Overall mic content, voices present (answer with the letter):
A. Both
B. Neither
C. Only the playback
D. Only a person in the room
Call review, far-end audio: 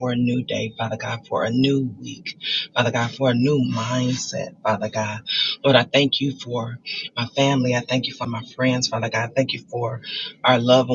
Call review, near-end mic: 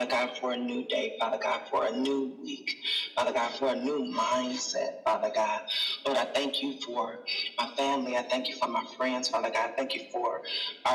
C